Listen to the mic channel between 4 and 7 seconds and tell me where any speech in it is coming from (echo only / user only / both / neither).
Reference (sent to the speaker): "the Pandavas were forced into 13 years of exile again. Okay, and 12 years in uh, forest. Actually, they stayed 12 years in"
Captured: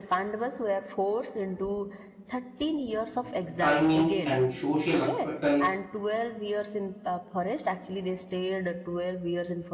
both